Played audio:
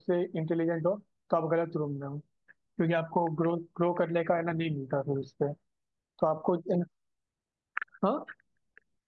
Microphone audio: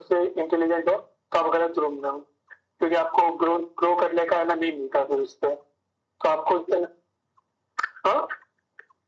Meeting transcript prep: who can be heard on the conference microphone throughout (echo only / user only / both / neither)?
echo only